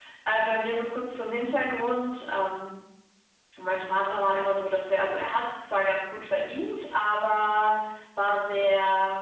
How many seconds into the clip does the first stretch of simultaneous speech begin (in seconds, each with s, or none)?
none